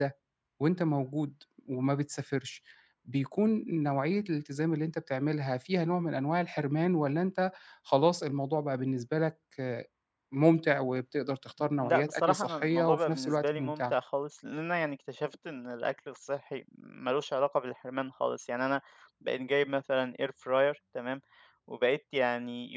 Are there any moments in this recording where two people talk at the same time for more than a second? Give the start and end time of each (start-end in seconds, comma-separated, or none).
11.8-13.9